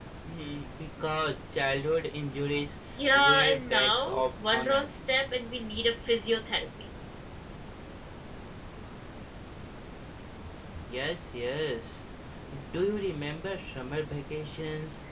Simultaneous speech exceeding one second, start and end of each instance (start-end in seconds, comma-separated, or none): 3.0-4.9